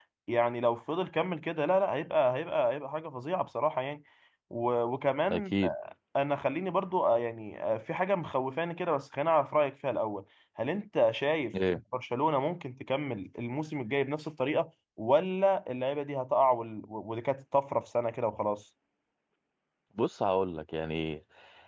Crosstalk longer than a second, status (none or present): none